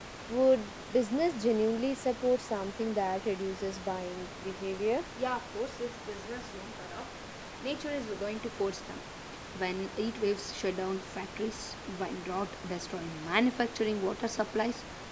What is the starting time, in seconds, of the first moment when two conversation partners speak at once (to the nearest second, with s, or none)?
none